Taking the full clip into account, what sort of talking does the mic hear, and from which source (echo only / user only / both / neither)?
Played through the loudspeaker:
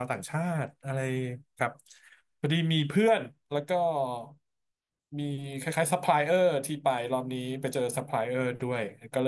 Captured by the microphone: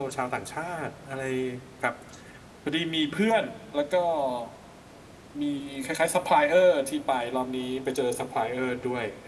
echo only